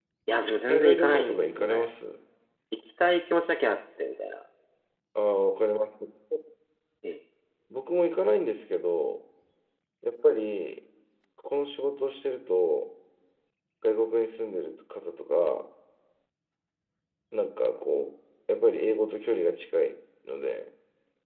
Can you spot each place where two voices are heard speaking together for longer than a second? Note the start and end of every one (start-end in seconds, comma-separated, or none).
0.7-1.9